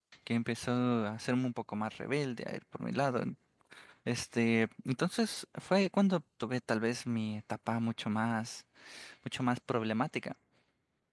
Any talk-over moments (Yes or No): No